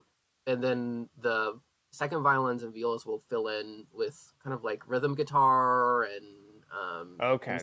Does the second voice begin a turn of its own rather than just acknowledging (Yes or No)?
Yes